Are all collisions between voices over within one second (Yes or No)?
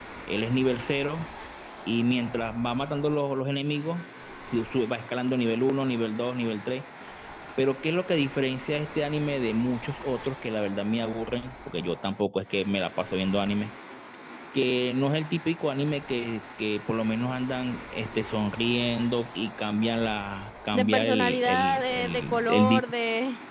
No